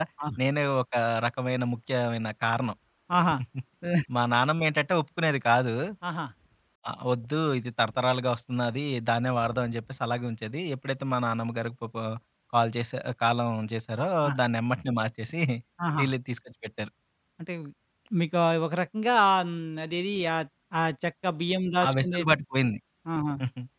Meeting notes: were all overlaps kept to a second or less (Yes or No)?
Yes